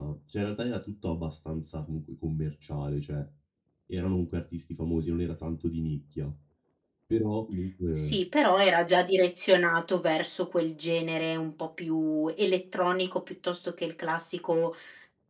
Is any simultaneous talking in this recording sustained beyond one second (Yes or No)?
No